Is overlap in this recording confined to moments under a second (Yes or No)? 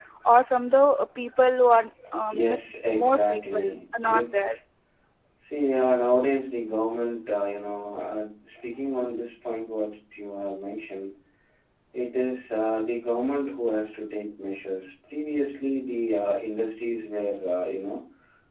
No